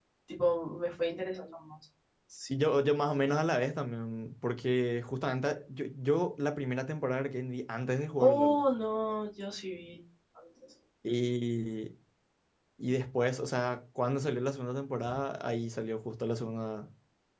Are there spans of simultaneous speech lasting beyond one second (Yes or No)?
No